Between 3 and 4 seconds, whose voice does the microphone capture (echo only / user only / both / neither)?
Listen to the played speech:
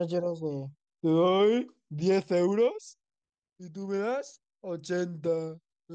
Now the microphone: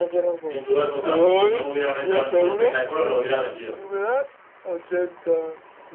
both